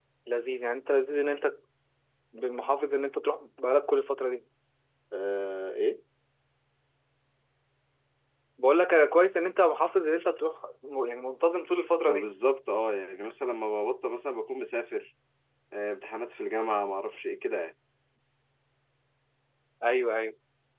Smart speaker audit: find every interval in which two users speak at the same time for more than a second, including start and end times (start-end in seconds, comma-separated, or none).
none